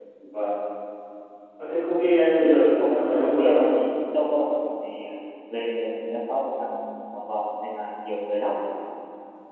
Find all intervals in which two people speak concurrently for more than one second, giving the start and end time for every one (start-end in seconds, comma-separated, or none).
2.4-3.7